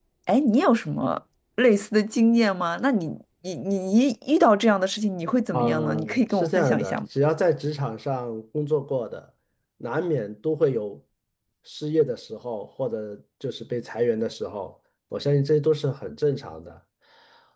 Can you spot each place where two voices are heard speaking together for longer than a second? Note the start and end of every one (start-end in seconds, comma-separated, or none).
5.5-7.0